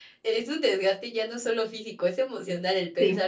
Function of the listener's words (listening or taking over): listening